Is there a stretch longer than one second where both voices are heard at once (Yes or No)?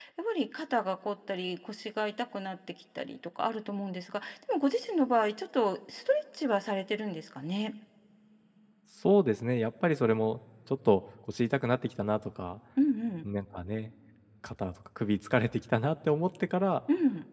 No